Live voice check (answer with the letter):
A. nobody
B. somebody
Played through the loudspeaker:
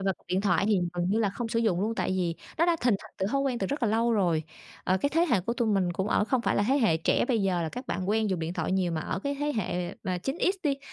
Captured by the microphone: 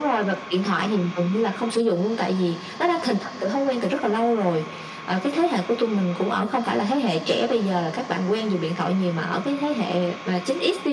A